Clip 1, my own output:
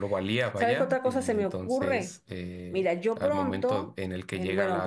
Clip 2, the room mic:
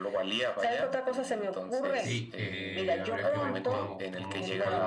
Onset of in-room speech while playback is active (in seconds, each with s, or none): 1.9 s